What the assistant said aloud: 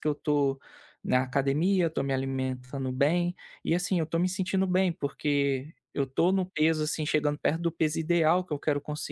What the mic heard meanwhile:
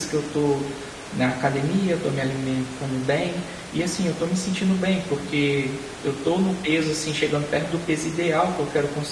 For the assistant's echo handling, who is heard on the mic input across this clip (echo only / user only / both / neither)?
echo only